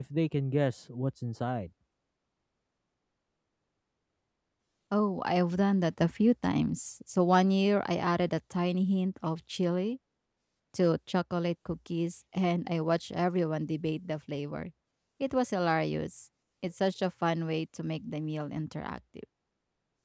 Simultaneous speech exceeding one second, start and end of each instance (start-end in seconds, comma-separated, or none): none